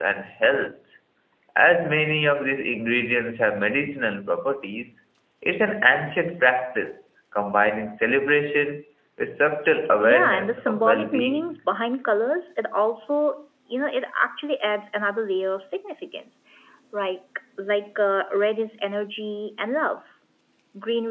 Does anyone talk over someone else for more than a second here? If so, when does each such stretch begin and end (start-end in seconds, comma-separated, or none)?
10.0-11.6